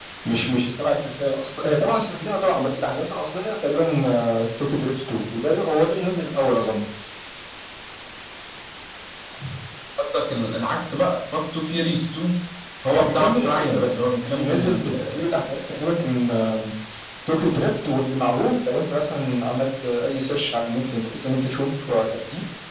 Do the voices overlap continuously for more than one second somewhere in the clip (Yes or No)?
Yes